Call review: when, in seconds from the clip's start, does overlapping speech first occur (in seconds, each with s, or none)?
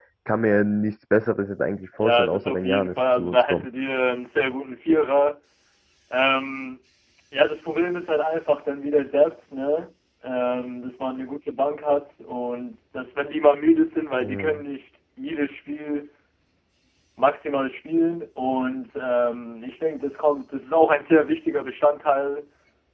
2.0 s